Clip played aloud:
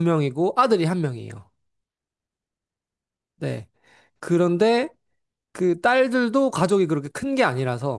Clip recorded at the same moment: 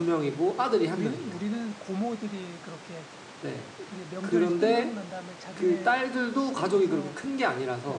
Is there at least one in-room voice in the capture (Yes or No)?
Yes